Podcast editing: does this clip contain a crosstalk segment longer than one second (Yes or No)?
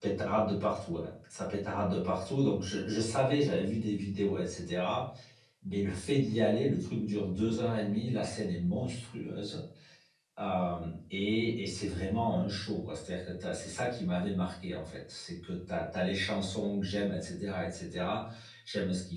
No